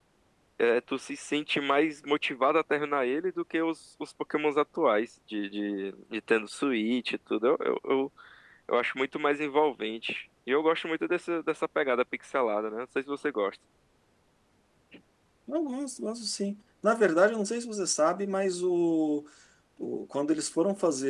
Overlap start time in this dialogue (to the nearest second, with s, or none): none